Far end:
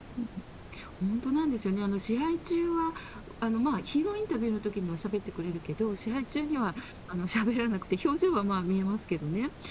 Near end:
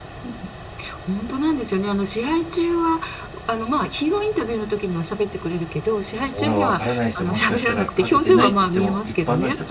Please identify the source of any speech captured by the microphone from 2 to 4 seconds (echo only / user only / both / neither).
echo only